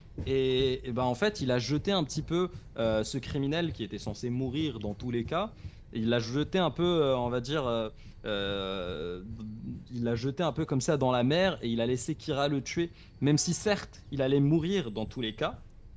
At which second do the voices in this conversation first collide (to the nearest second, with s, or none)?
none